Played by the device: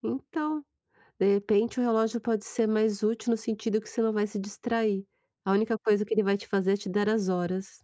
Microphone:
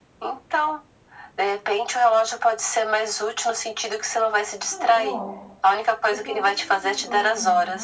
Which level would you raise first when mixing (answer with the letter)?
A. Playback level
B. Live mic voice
B